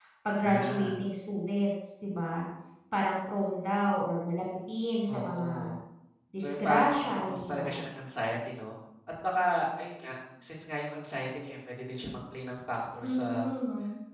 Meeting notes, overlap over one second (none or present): present